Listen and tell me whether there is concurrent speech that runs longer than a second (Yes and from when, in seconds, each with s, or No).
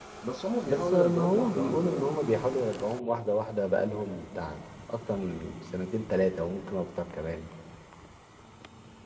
Yes, from 0.7 s